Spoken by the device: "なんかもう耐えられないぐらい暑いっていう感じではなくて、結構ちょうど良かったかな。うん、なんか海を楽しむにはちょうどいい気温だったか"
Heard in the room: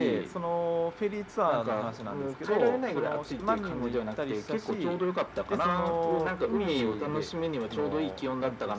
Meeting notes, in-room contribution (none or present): present